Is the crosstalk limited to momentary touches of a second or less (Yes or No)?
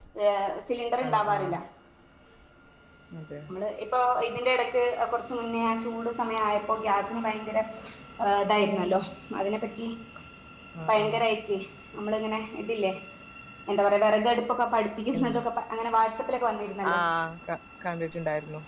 Yes